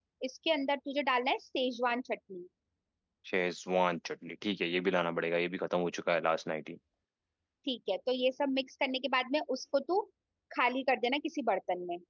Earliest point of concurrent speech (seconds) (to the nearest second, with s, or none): none